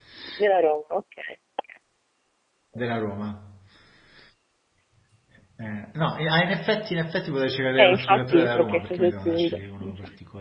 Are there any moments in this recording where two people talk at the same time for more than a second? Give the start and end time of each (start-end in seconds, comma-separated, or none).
7.8-9.9